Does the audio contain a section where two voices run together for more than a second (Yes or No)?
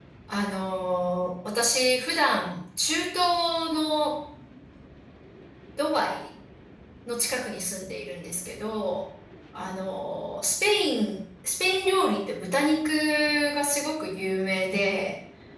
No